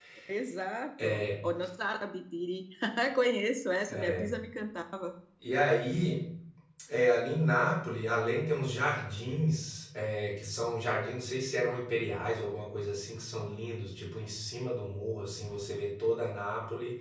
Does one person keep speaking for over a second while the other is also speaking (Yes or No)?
No